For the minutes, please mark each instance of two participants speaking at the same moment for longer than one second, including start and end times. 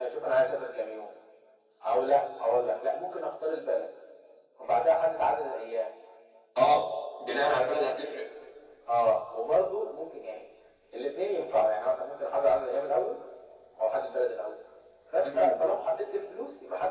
none

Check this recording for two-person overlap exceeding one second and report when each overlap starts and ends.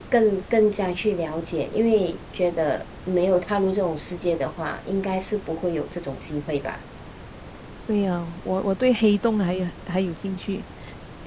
none

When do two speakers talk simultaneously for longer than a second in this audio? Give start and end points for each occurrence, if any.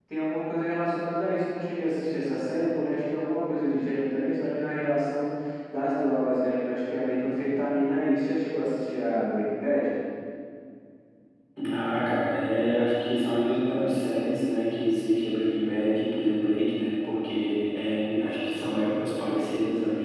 none

